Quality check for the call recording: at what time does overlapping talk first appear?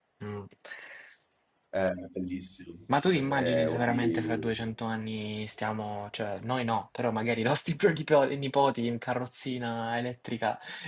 3 s

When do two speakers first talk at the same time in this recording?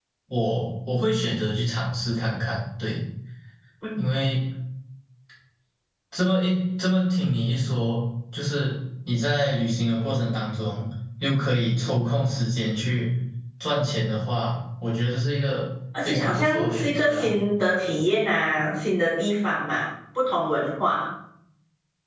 16 s

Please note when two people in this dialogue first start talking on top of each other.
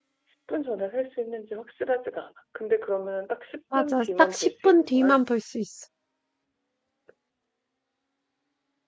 4 s

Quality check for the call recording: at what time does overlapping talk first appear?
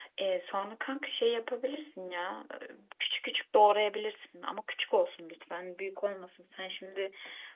none

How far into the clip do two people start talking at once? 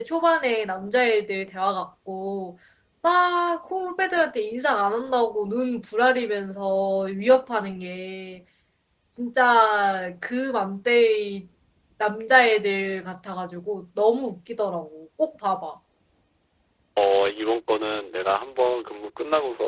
none

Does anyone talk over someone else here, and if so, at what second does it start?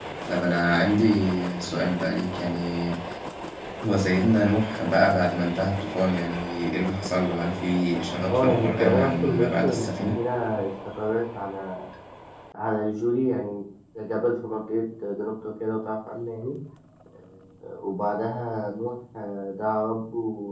8 s

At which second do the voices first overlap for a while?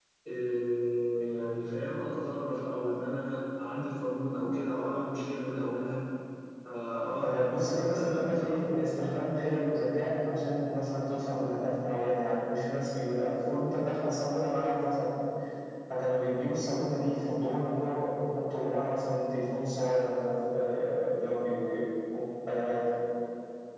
7 s

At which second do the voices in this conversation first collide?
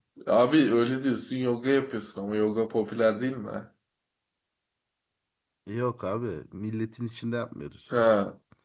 none

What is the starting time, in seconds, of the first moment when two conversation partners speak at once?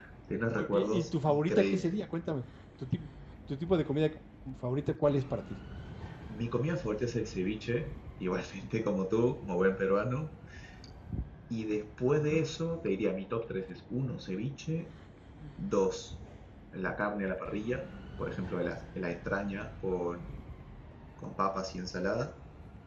1 s

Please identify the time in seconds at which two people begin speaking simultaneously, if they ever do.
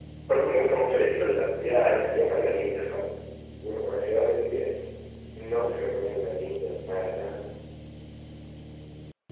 2 s

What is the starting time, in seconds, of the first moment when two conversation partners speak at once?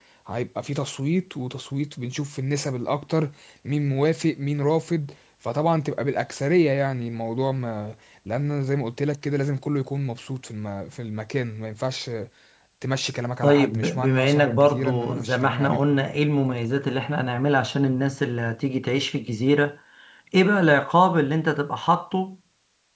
13 s

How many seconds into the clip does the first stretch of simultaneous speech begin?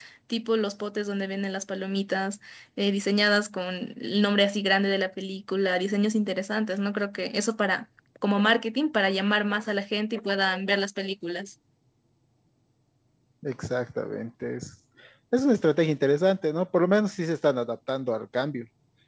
none

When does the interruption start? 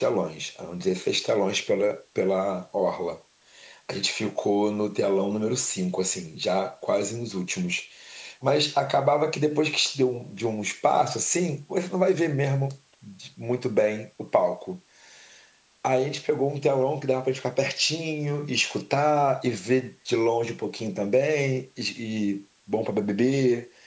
none

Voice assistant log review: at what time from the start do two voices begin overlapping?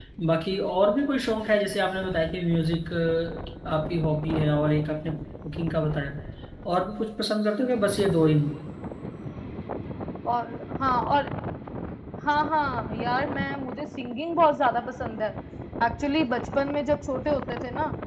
none

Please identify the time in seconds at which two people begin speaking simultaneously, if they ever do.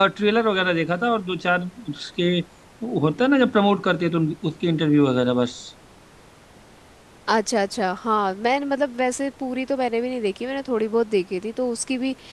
none

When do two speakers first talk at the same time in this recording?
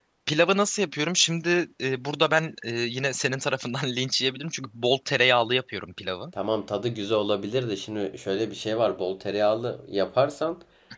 none

